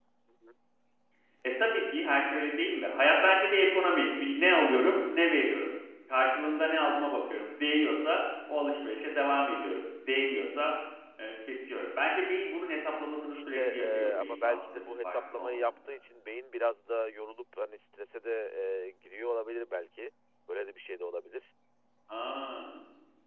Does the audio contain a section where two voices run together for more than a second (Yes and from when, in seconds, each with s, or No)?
Yes, from 13.3 s